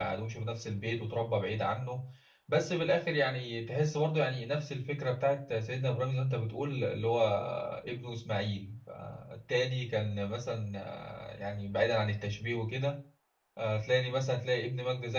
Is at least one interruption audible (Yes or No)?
No